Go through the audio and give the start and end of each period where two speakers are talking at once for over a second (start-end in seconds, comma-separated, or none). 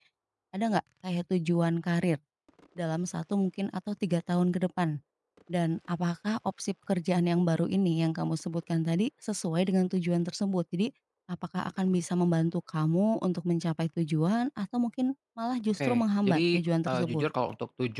15.8-17.2